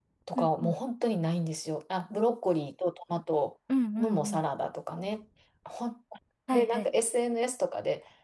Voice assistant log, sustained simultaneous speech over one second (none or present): none